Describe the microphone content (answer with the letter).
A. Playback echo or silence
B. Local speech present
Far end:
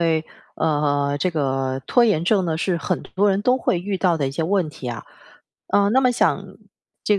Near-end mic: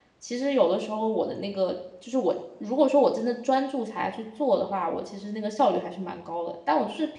B